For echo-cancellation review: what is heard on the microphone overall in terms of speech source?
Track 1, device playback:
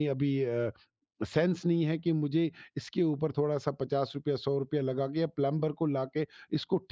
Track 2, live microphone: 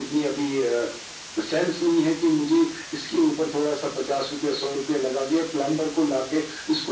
echo only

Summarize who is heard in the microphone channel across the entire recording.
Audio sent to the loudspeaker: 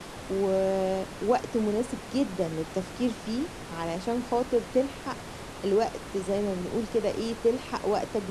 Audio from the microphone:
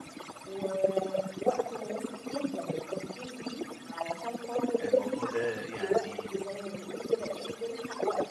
both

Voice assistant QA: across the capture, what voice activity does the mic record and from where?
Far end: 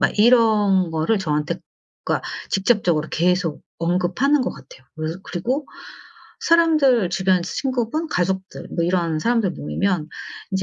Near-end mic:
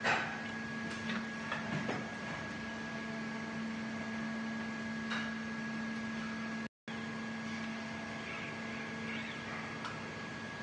neither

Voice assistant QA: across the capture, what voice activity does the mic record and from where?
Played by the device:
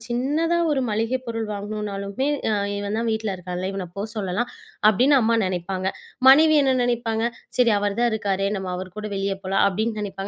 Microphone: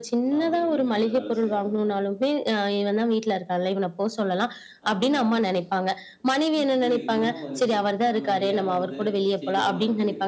both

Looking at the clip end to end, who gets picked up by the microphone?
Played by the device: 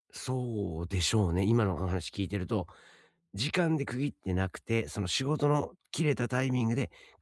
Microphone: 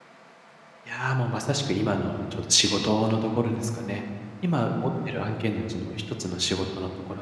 user only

